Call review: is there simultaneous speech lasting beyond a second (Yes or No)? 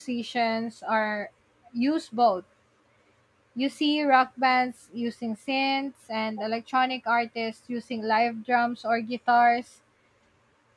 No